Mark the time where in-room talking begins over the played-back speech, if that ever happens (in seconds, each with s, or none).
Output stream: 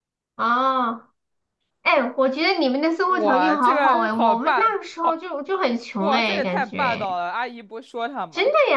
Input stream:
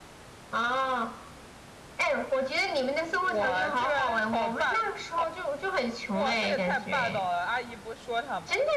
none